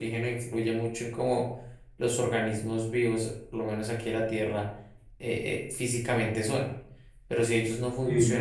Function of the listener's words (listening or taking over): listening